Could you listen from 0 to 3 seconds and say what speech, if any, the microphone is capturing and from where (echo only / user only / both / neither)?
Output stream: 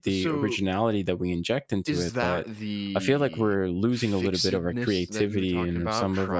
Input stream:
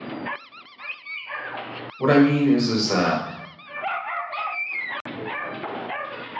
user only